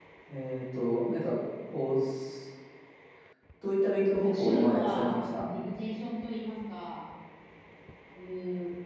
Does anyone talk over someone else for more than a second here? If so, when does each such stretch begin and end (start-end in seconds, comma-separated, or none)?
4.2-5.5